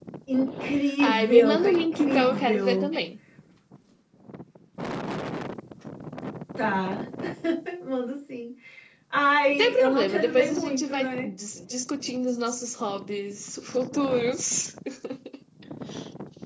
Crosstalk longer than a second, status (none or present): present